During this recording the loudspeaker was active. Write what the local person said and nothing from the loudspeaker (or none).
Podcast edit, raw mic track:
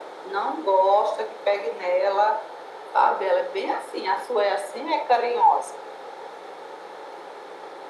none